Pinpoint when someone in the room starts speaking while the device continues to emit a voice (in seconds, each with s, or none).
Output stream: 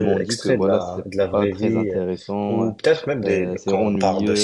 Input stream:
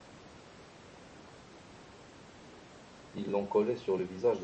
3.1 s